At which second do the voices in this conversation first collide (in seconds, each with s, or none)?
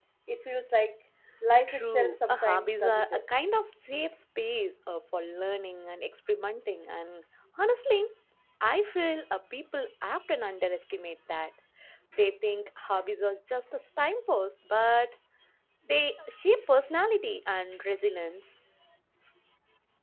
1.7 s